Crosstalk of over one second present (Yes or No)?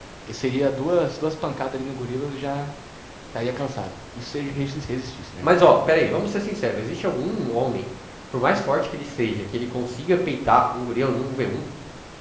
No